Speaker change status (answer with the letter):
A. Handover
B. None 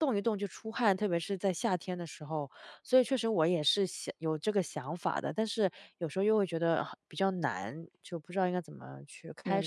A